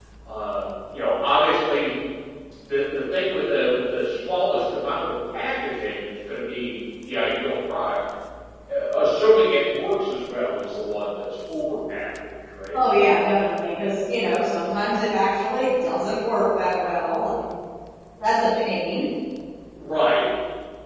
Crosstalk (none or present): none